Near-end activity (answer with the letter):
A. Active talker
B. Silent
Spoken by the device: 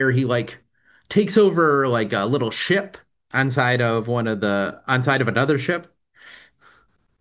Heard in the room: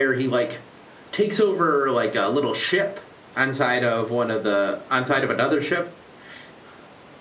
B